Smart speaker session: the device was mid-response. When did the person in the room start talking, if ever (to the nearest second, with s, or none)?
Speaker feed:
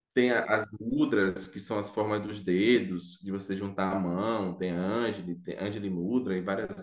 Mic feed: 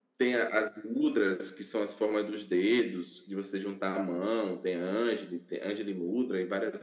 none